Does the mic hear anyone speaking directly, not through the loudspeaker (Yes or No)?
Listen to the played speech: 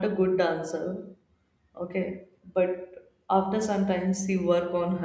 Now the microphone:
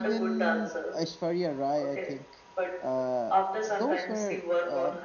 Yes